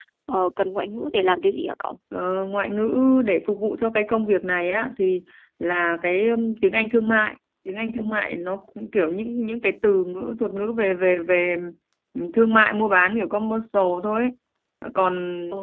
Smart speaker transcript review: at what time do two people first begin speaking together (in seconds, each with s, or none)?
none